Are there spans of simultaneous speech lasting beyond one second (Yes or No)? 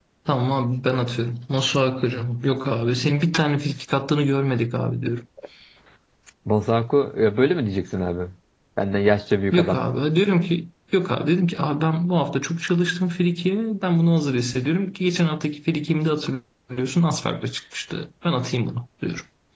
No